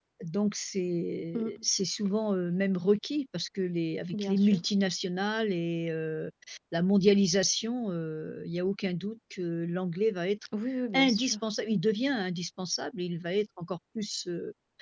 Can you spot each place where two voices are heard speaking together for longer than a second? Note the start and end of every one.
none

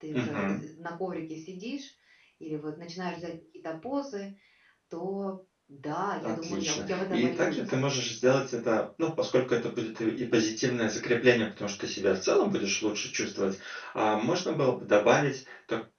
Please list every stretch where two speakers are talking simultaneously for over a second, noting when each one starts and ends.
6.2-7.8

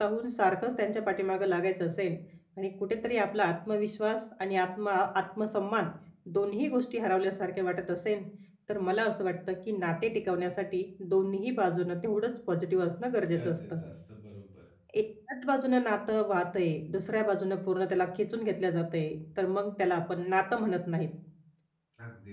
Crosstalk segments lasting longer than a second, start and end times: none

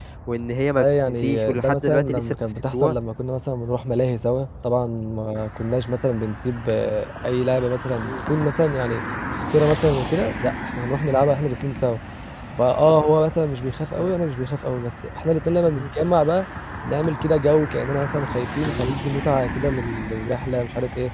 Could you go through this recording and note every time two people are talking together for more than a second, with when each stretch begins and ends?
0.8-2.9

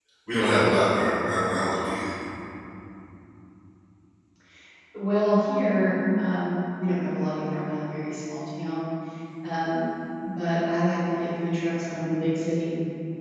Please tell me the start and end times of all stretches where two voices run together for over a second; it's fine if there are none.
none

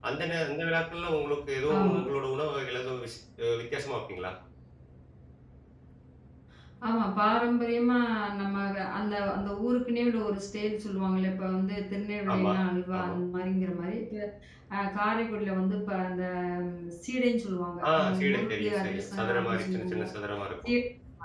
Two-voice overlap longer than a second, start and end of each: 18.0-20.1

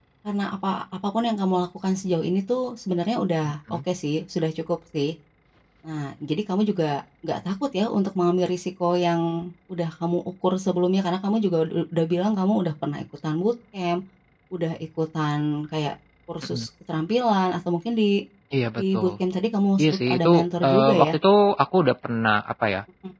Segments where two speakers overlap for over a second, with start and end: 19.8-21.2

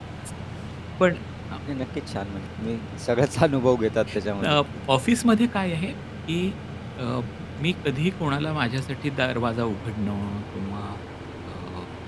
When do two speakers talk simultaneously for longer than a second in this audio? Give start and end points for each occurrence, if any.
none

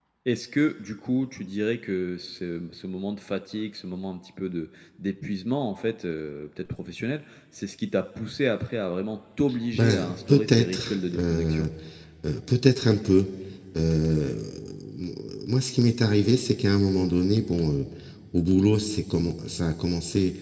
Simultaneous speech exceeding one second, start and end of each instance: 9.7-11.7

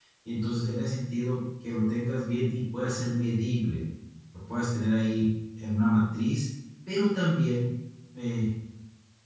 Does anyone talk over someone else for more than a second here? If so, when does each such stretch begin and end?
none

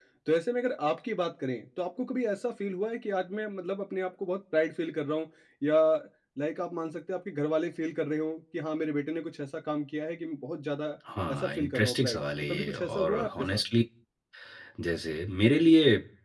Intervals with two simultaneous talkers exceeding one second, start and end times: 11.3-13.6

